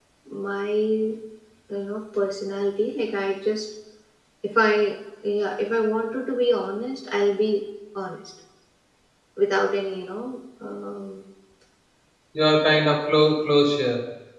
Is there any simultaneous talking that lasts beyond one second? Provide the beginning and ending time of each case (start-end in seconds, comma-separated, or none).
none